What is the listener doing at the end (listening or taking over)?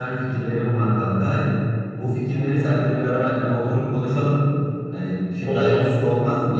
listening